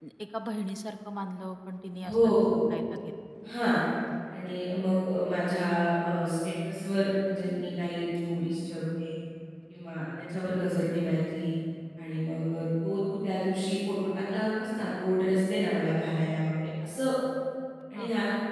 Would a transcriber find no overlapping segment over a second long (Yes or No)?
Yes